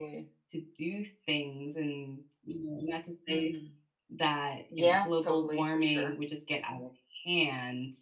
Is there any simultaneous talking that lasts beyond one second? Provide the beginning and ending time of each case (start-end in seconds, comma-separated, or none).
4.7-6.2